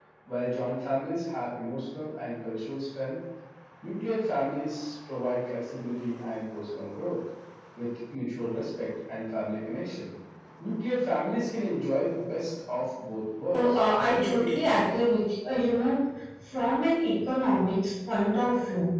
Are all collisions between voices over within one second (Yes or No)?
No